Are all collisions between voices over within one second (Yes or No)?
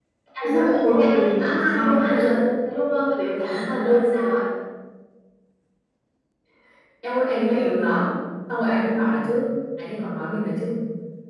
No